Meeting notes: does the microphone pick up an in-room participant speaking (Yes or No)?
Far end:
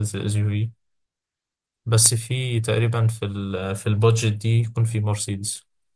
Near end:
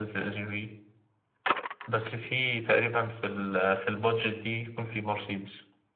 No